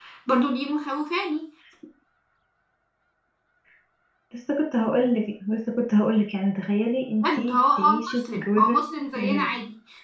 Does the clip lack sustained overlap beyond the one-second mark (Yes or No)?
No